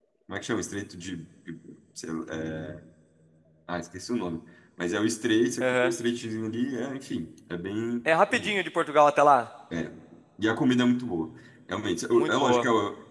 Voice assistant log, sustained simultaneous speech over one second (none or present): none